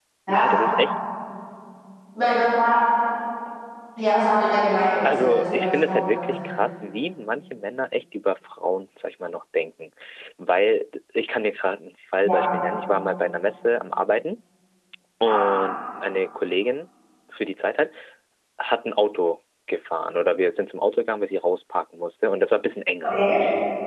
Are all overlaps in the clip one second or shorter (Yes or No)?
No